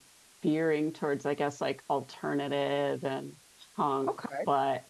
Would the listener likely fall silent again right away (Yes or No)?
Yes